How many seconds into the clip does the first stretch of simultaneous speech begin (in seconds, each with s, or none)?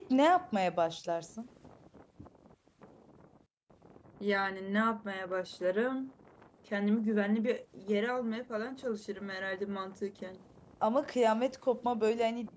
none